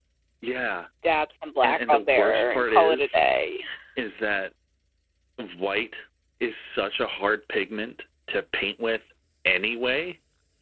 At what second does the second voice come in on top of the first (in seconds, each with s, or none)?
1.6 s